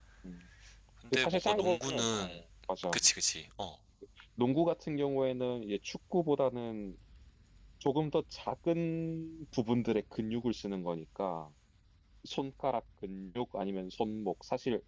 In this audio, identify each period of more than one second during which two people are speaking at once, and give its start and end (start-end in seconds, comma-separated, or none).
1.1-2.4